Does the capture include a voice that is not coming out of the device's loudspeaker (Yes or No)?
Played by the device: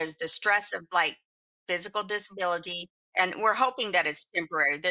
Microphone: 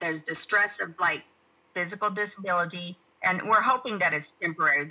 No